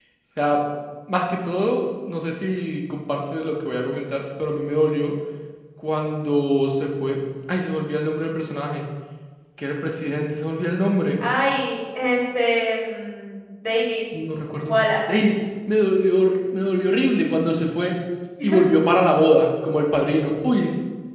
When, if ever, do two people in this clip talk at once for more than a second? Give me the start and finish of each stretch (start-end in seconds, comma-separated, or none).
none